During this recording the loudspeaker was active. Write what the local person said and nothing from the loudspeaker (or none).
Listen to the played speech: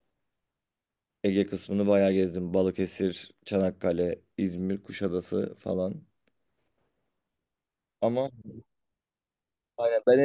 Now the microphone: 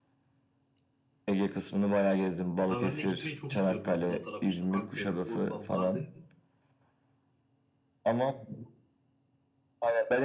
Ama ben de gitmeyi çok istiyorum aslında o tarafa işte Antep, Urfa, Mardin.